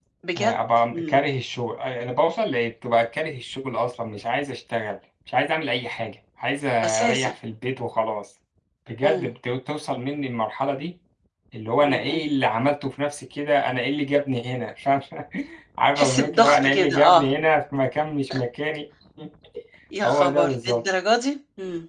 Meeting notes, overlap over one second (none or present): present